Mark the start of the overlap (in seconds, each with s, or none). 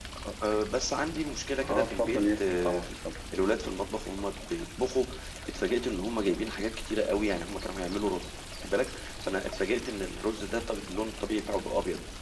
1.6 s